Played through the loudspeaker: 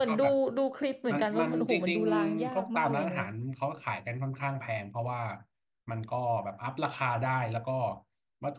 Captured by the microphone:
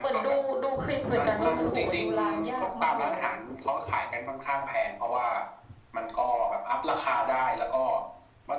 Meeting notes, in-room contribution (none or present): none